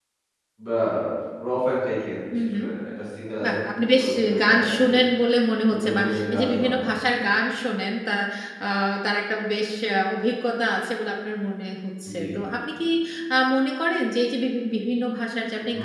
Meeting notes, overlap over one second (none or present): present